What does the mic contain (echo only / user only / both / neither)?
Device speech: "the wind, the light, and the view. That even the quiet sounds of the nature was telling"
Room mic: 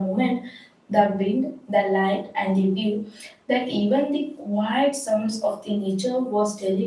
echo only